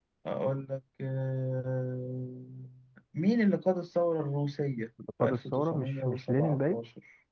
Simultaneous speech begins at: 5.0 s

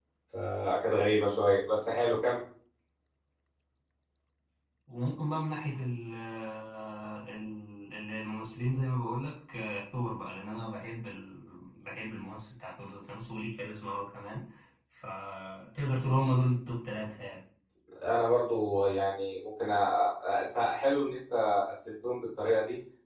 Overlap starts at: none

